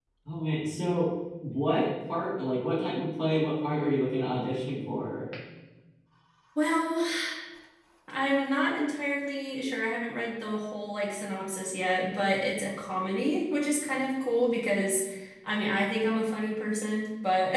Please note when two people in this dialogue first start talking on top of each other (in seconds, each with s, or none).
none